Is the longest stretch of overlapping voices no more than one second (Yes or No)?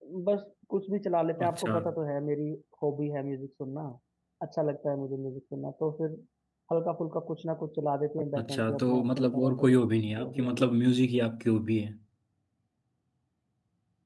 No